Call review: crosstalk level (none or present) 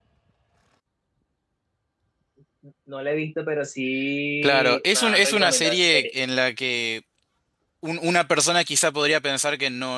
present